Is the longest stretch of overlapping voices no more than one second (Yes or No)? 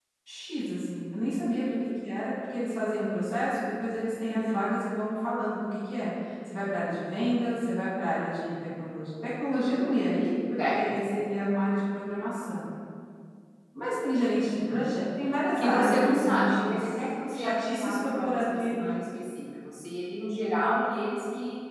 No